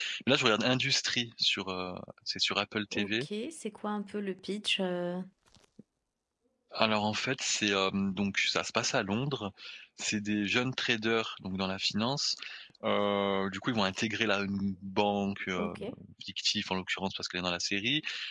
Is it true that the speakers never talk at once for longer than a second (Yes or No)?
Yes